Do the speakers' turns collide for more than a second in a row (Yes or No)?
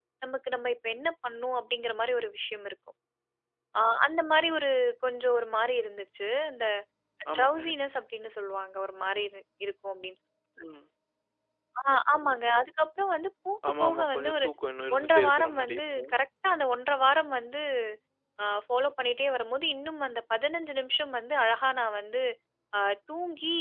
Yes